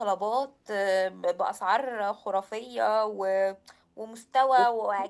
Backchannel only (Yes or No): Yes